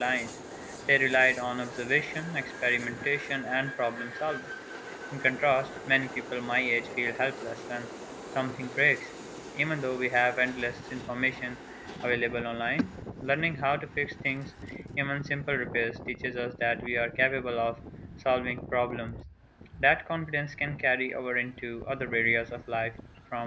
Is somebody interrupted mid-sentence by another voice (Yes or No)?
No